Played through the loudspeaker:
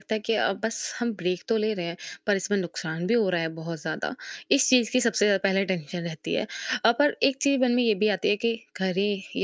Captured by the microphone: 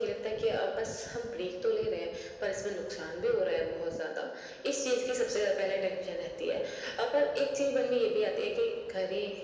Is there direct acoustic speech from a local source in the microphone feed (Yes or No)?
No